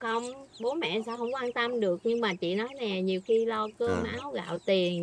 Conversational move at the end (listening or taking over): listening